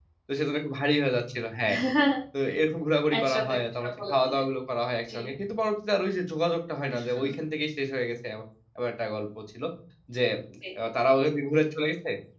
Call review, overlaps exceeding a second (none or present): present